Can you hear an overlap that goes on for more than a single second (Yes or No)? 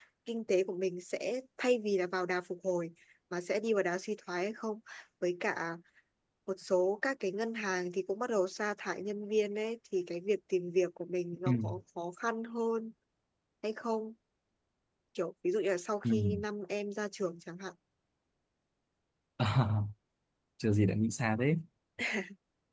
No